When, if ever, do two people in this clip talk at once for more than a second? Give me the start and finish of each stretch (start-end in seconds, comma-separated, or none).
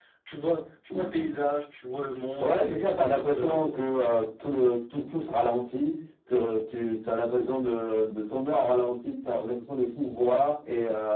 2.4-3.7